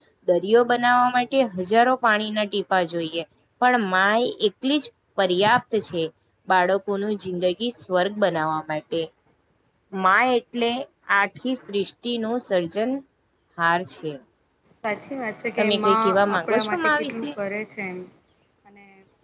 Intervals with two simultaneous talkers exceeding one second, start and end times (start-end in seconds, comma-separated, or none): 15.6-17.3